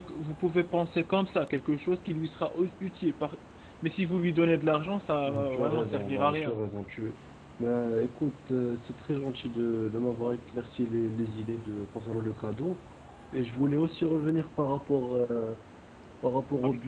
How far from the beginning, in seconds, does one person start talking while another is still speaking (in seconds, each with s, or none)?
5.3 s